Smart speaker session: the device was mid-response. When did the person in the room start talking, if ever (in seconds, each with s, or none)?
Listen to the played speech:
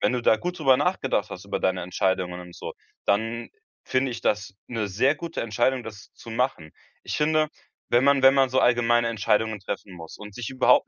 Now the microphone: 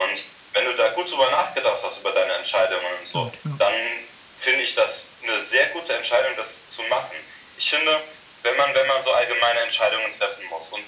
3.0 s